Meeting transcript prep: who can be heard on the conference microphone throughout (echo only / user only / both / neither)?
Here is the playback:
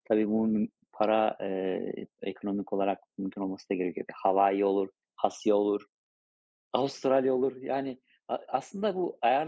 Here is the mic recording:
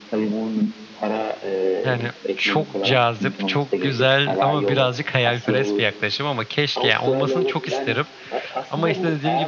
both